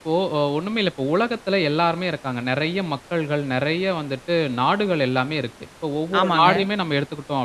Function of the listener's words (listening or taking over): listening